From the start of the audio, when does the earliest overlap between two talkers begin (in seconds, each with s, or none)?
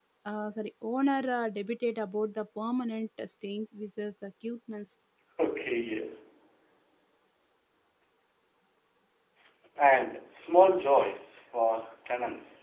none